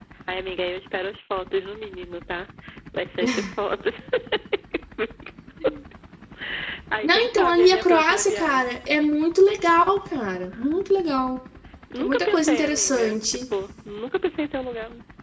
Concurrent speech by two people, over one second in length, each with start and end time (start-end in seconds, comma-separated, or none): 7.0-8.8, 12.0-13.4